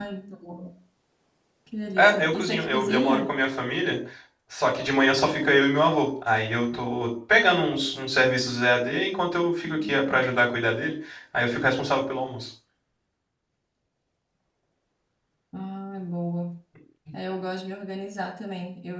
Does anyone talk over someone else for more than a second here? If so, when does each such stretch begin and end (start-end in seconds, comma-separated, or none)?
2.0-3.3